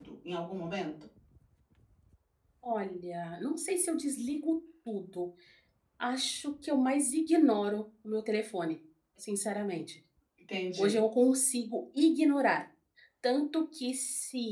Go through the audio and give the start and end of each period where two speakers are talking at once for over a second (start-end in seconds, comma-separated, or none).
none